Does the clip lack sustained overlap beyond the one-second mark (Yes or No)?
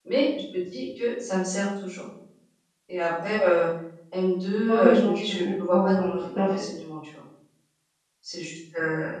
No